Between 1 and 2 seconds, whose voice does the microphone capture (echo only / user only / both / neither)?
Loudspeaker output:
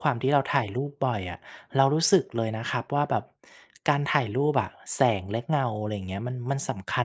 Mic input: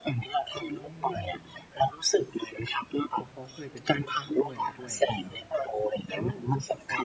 both